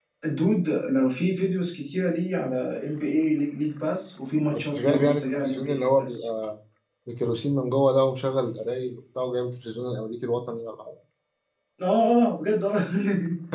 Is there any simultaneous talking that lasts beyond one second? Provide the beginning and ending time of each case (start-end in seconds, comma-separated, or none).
4.8-6.3